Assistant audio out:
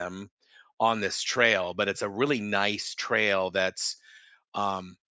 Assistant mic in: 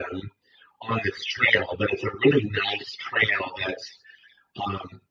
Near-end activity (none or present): none